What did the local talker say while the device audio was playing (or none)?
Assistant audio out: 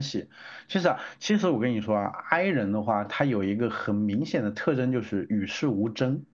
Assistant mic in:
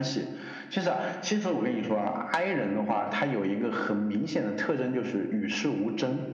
none